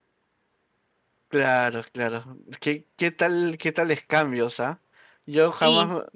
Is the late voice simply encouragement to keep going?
Yes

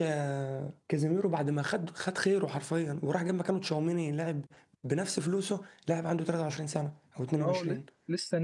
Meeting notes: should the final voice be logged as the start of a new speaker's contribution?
Yes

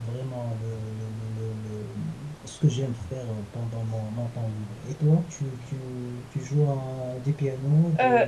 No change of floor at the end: No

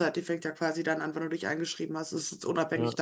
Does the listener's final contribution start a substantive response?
No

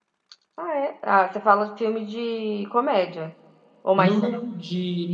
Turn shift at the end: Yes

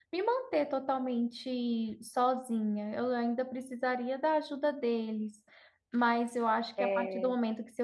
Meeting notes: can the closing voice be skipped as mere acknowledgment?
Yes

